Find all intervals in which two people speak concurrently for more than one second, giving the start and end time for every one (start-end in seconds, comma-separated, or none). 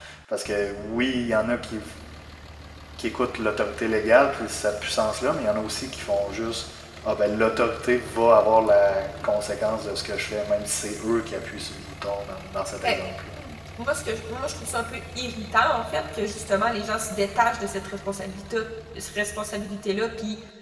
none